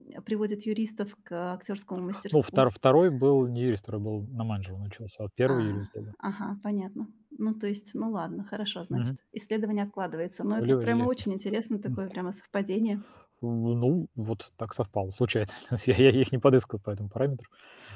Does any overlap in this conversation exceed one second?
No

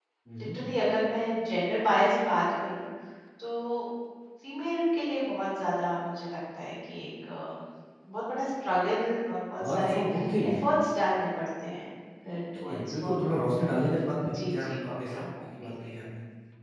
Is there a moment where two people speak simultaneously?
Yes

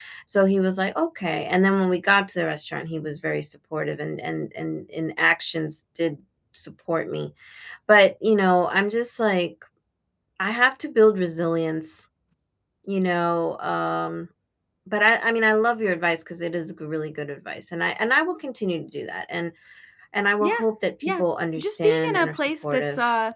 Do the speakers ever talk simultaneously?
Yes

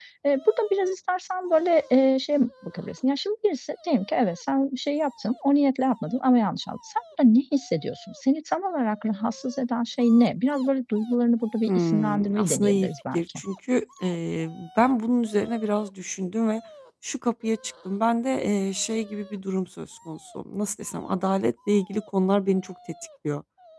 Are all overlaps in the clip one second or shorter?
No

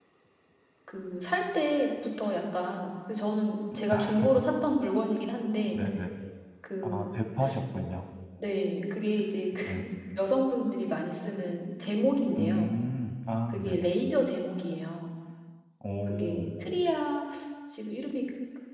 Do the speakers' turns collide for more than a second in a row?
No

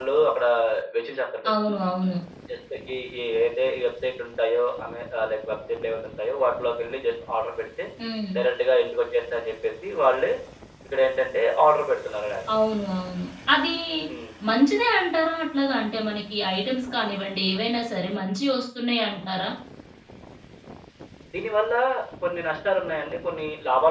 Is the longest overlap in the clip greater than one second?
No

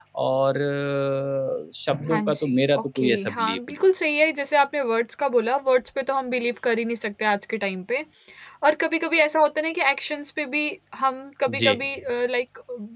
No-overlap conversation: No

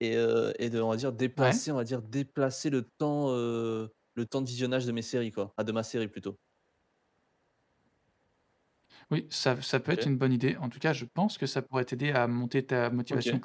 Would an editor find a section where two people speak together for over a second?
No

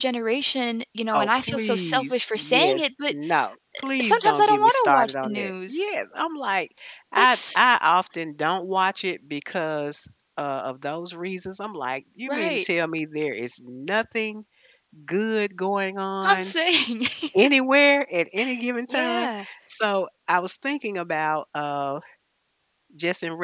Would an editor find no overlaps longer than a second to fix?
No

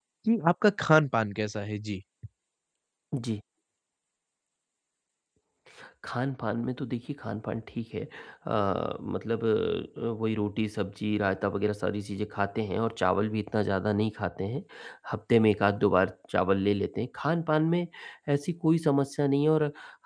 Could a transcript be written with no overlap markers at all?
Yes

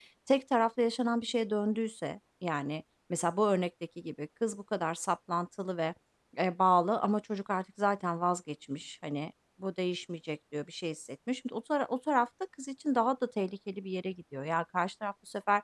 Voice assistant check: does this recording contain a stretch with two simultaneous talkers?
No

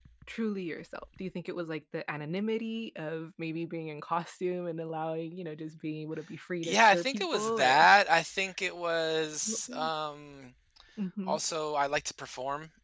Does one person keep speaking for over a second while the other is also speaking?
Yes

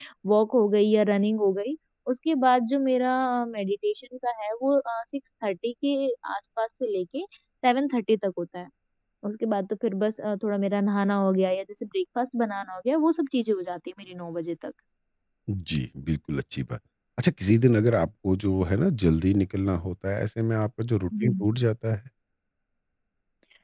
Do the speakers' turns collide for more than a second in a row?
No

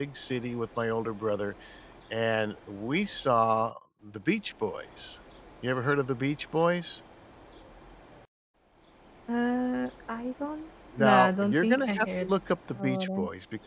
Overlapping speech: Yes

